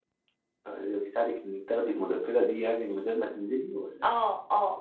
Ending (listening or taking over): taking over